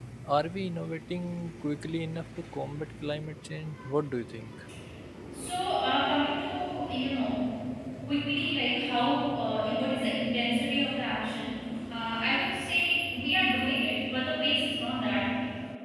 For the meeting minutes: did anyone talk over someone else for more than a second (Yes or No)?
No